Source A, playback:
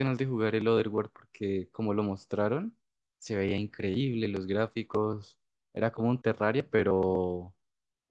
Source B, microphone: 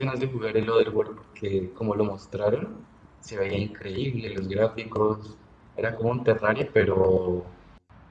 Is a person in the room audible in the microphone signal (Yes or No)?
No